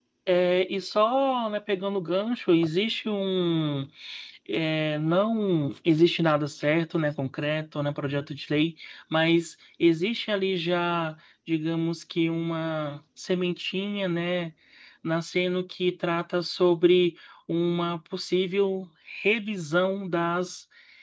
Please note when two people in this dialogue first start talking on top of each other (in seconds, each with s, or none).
none